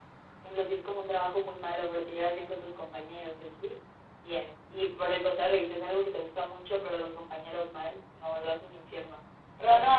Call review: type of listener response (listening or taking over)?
listening